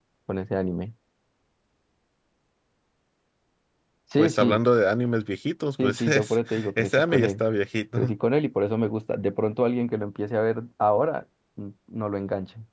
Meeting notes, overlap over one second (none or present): present